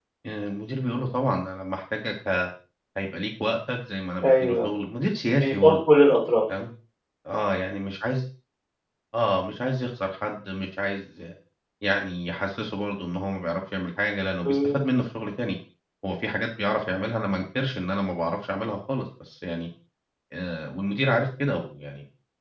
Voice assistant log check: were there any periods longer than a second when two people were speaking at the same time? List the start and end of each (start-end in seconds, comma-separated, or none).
none